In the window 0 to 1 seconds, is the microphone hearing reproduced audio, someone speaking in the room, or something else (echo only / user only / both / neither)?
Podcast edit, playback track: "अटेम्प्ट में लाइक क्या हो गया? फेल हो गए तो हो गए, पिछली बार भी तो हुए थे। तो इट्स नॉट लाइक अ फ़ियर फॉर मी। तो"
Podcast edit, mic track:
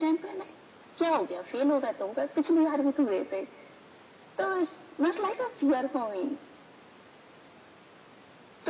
echo only